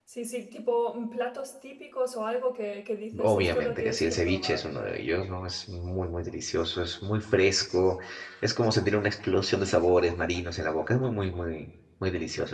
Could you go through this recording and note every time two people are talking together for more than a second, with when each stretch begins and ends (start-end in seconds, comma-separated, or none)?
3.2-4.7